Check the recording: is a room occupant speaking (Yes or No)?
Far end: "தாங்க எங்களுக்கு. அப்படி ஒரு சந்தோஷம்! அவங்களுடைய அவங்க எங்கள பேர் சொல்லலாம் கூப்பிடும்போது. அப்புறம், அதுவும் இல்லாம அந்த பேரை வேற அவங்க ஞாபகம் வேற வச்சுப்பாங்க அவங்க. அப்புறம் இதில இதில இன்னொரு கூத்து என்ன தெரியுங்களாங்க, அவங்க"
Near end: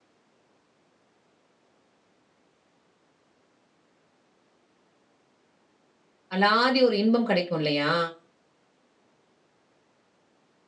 Yes